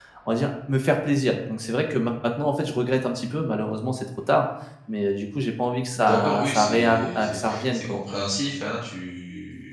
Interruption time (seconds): 6.0 s

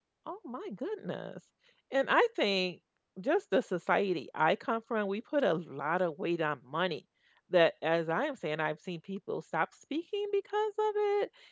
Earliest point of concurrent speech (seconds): none

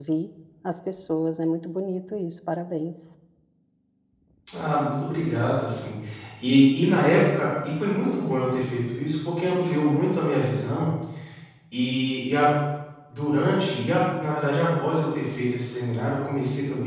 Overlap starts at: none

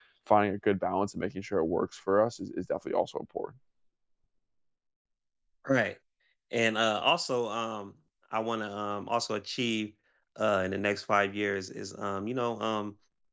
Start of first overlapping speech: none

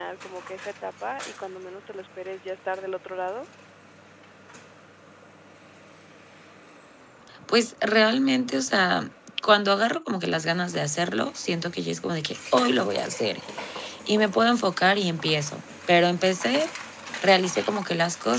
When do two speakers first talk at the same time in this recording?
none

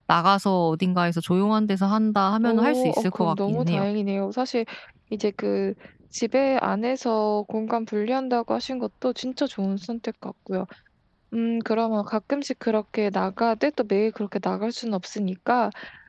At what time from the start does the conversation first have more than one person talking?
2.4 s

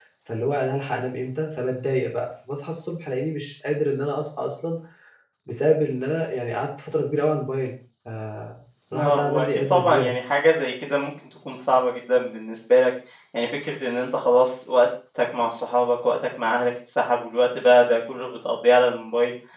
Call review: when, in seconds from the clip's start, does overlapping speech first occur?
8.9 s

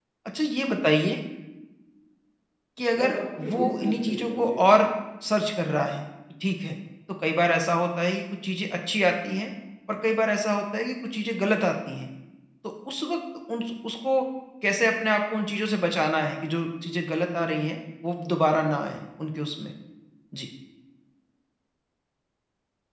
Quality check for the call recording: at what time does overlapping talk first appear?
3.0 s

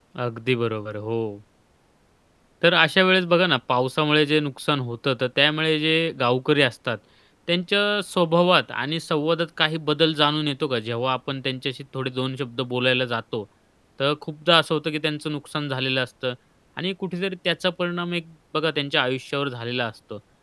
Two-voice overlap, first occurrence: none

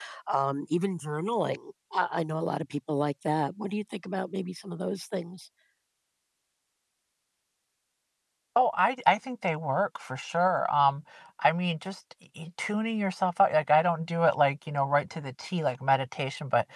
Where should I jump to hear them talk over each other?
none

